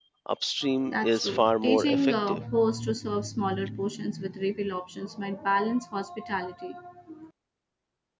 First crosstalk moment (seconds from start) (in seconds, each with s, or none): 0.9 s